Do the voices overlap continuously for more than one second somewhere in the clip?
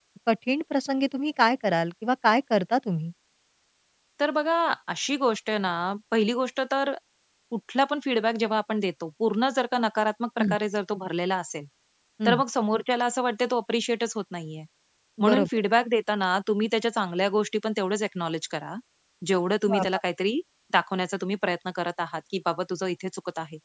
No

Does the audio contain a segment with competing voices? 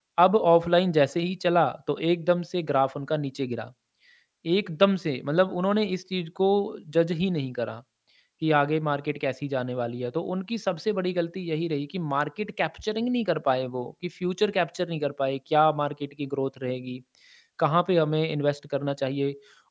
No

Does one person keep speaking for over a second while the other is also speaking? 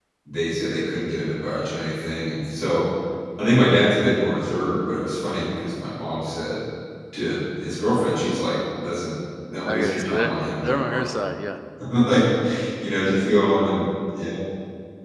Yes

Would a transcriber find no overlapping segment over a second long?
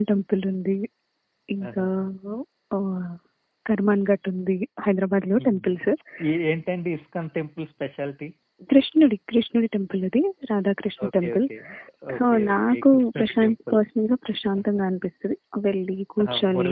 No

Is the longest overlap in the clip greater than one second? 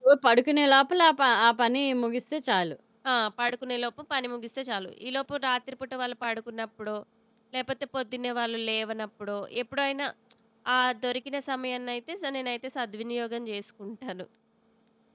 No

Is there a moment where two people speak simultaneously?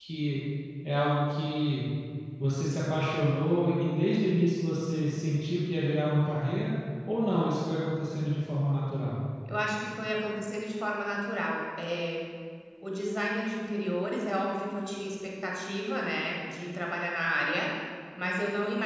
No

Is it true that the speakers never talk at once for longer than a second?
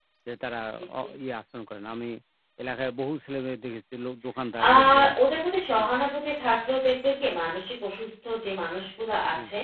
Yes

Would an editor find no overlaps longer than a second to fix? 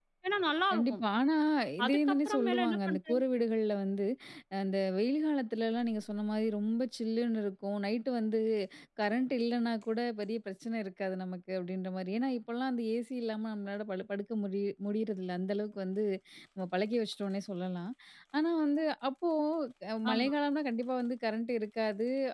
No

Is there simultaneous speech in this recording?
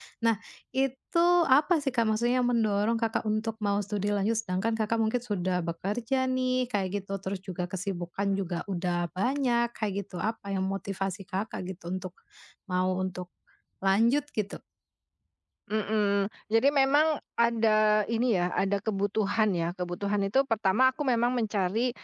No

